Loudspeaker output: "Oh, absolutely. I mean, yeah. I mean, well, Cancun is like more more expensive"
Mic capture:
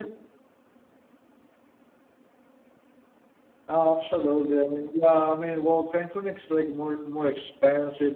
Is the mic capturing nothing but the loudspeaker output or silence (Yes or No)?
Yes